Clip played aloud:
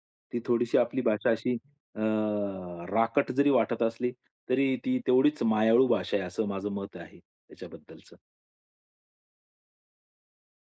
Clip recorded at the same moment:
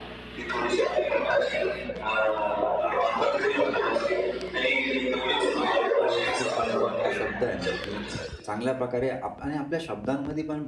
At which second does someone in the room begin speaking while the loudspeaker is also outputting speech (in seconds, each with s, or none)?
6.0 s